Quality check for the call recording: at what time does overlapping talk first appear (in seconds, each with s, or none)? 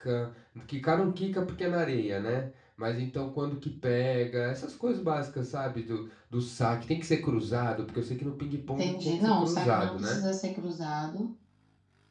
8.8 s